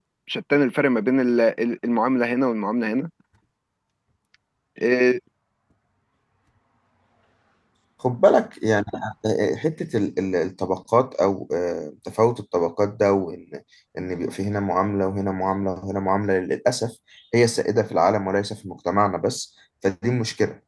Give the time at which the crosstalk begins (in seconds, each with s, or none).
none